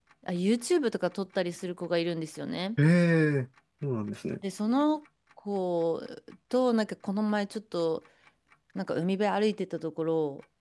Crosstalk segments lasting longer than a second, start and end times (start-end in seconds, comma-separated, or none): none